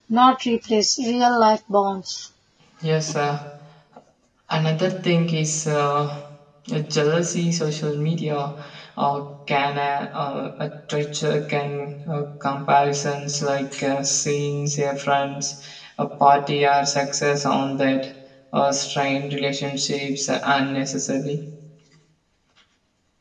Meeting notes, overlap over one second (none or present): none